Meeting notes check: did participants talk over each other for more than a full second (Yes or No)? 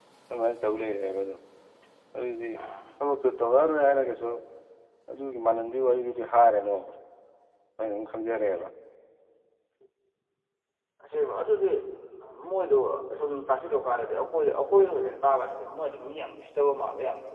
No